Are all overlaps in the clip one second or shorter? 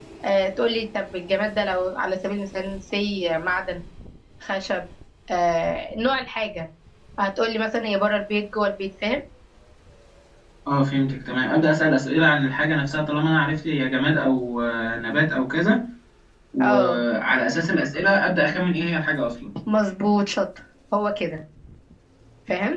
Yes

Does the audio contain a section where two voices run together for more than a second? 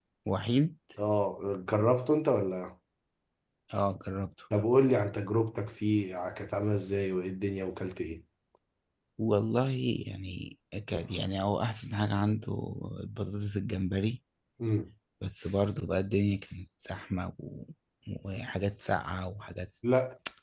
No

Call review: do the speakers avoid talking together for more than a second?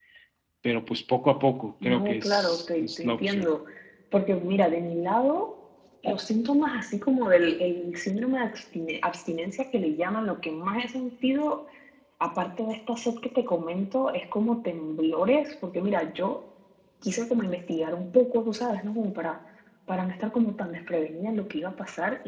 No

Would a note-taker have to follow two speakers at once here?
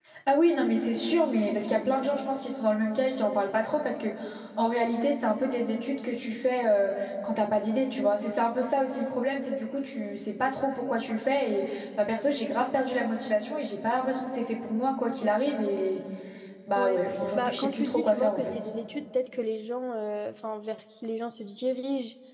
Yes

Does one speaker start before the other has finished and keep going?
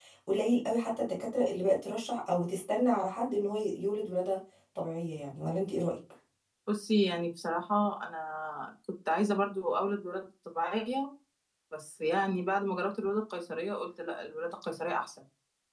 No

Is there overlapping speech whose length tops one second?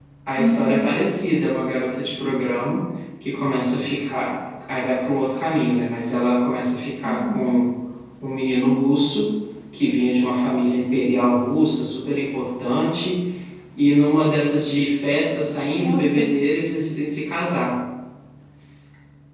No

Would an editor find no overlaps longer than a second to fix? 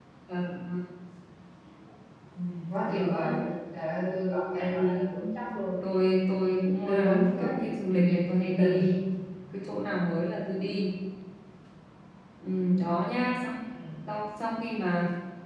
No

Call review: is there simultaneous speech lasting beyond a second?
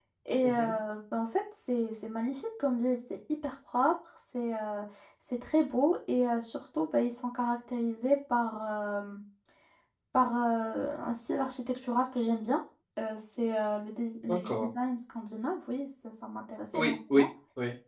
No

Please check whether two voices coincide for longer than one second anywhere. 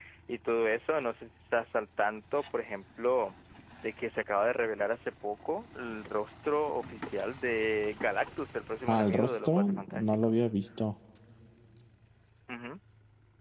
Yes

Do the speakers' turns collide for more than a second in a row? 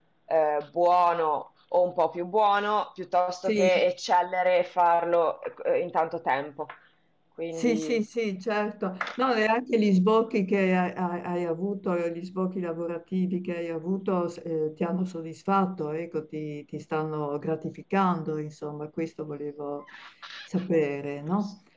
No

